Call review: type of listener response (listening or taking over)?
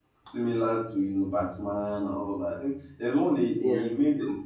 listening